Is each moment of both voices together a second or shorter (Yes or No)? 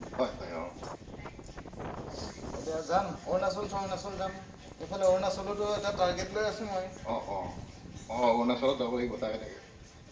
Yes